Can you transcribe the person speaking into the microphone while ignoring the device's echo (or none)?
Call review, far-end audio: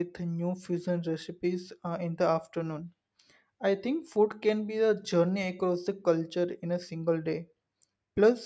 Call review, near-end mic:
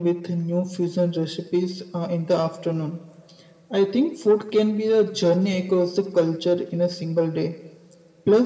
none